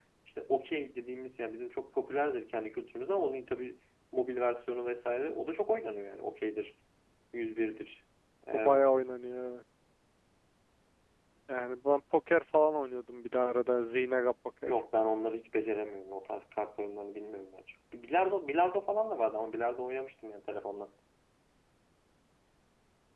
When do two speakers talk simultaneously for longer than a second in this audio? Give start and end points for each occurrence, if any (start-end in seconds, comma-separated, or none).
none